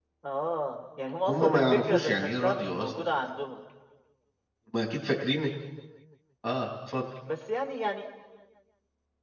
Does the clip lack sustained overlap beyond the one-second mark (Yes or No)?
No